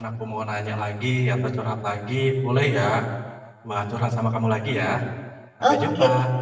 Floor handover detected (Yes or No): Yes